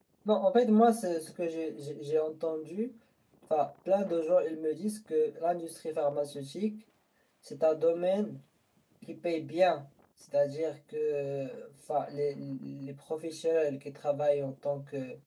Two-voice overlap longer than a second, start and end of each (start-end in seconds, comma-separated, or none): none